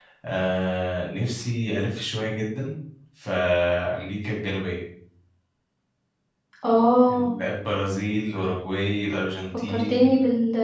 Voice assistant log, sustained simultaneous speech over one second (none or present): none